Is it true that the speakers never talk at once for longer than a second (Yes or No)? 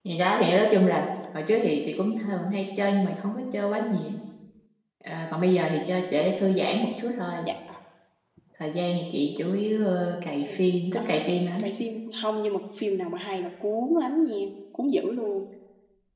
Yes